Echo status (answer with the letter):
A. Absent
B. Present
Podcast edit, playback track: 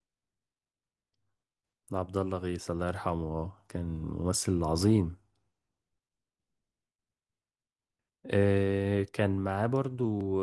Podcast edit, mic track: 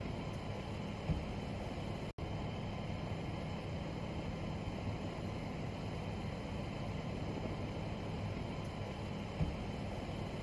A